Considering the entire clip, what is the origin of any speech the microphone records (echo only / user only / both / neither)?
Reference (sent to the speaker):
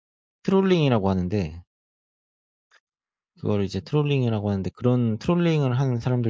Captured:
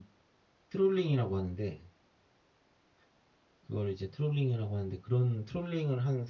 echo only